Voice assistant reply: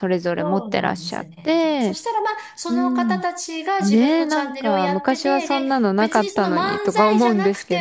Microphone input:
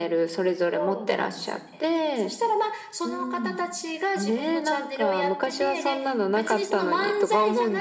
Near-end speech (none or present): none